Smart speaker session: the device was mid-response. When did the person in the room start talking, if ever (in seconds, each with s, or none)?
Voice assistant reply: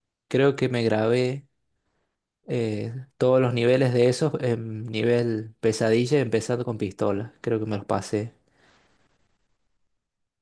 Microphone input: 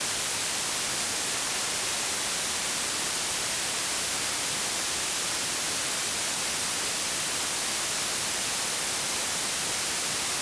none